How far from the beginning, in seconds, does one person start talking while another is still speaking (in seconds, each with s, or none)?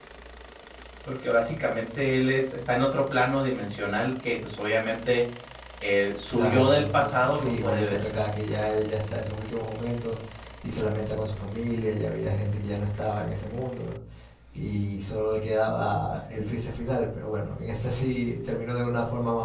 6.3 s